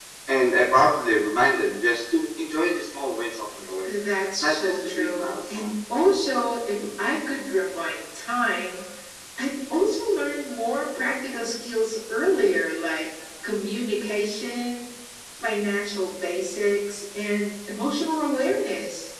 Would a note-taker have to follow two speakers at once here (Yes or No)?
Yes